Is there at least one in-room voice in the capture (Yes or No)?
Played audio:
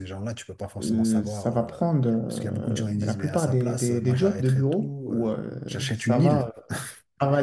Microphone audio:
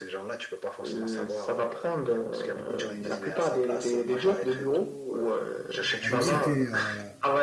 Yes